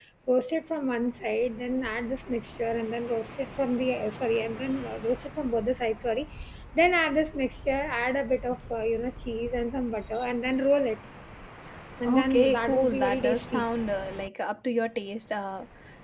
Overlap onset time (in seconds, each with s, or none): 12.1 s